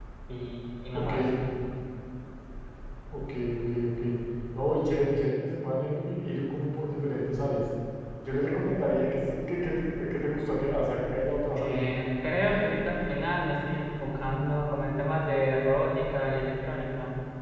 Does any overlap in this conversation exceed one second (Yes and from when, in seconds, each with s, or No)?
No